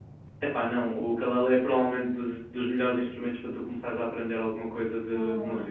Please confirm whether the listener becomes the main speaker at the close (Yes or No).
Yes